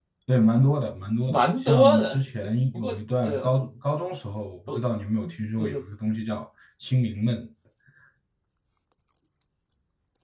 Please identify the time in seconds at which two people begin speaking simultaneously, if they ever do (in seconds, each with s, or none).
1.3 s